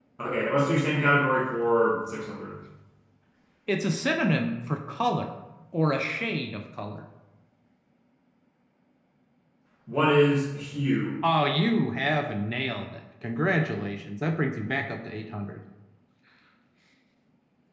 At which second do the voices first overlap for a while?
none

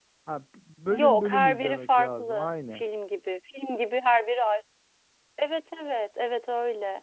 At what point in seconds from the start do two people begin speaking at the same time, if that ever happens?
0.9 s

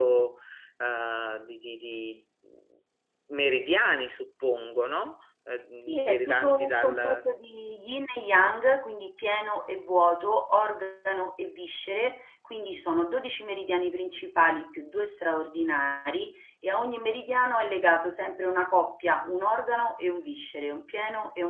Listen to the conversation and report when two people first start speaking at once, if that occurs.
5.9 s

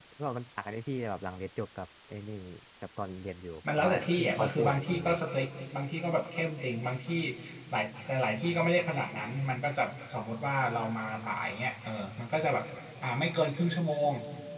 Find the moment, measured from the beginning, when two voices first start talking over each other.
3.6 s

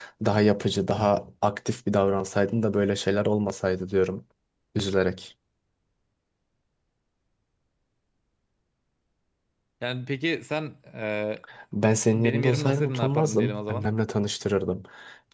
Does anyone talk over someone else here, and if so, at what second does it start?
12.1 s

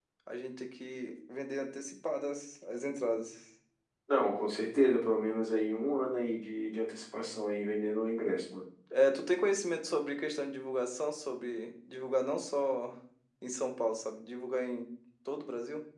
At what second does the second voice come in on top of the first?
none

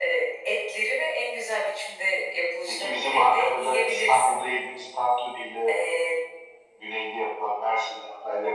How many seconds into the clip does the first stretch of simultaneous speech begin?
2.7 s

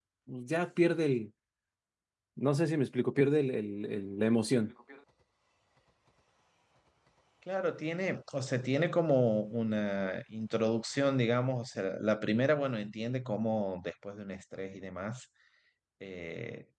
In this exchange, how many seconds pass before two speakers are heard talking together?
none

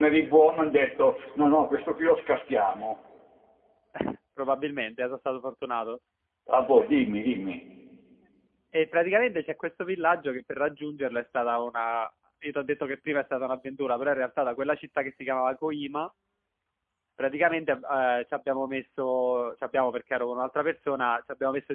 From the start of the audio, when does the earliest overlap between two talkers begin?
none

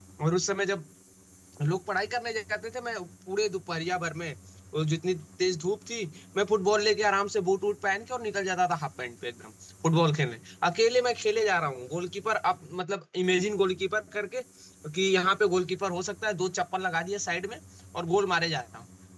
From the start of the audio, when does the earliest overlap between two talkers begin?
none

